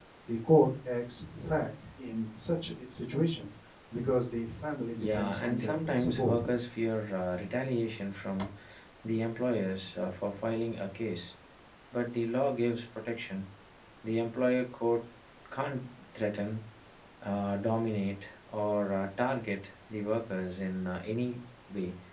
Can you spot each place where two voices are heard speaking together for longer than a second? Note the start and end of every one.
5.0-6.4

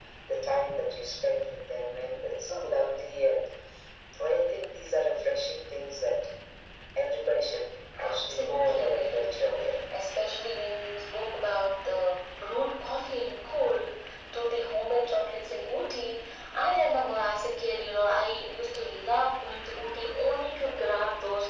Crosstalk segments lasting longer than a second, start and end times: 8.1-9.8

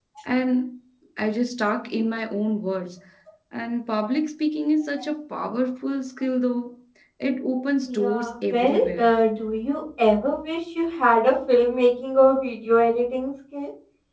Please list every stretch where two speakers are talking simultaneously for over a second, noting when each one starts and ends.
7.9-9.1

